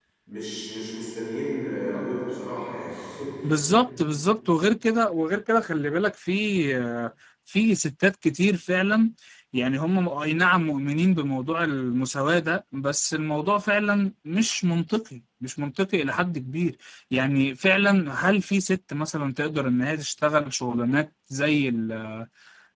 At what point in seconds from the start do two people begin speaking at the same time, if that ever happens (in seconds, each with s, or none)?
none